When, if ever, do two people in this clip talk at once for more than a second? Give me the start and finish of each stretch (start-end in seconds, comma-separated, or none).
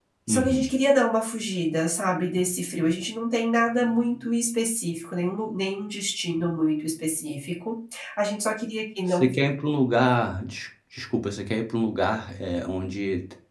none